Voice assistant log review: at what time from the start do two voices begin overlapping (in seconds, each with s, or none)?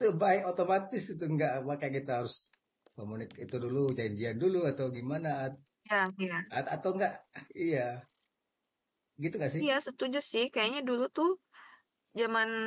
none